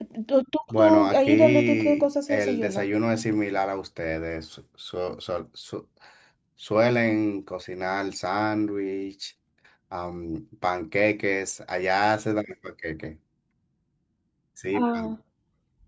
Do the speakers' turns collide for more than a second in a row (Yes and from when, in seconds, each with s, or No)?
Yes, from 0.8 s